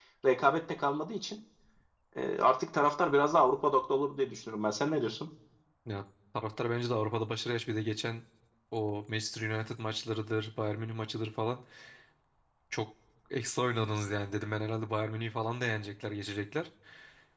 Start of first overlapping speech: none

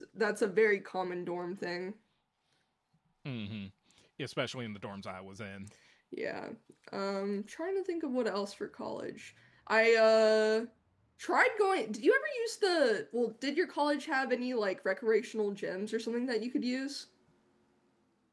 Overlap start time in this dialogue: none

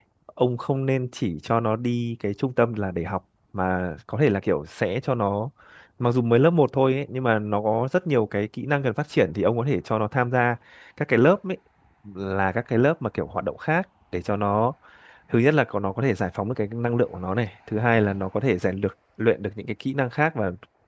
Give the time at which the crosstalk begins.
none

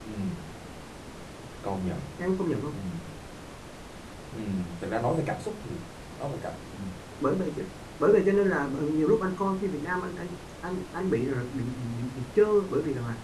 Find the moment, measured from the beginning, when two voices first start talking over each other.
none

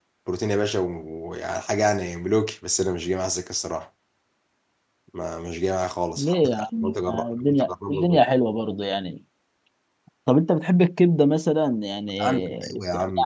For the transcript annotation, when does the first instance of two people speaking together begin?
6.2 s

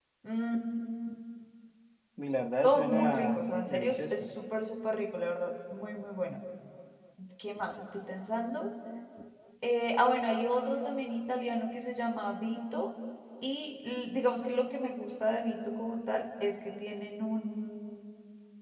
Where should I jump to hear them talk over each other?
2.6 s

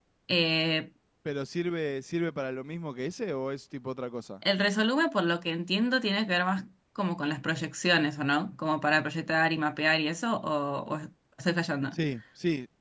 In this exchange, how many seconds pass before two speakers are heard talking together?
none

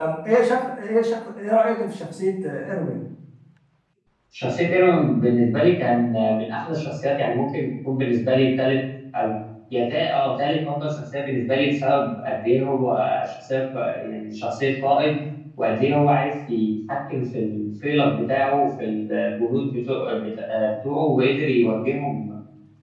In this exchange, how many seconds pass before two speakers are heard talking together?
none

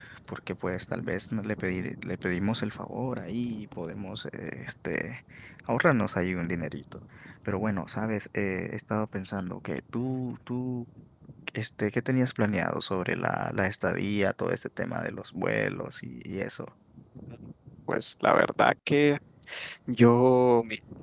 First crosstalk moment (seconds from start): none

